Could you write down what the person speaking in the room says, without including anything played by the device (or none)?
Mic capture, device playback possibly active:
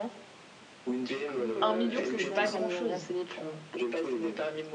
un million c'est pas grand-chose, tu vois?